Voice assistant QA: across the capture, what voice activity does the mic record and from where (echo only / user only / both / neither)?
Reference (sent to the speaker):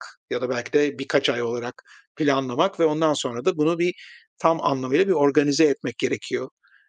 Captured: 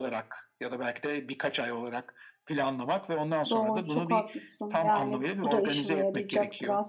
both